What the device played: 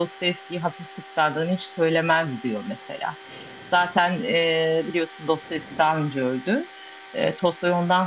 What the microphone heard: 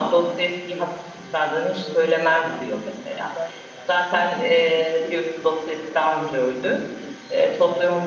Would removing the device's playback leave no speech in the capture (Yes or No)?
No